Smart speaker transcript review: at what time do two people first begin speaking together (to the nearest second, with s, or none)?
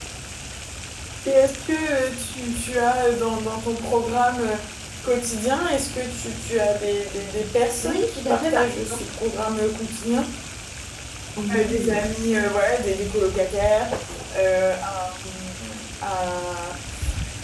8 s